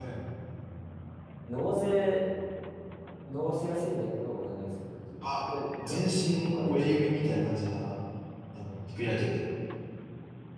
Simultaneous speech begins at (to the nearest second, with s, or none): 6 s